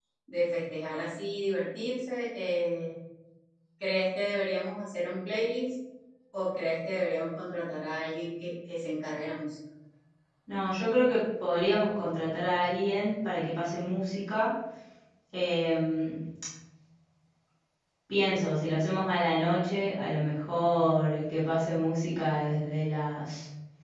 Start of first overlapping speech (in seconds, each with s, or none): none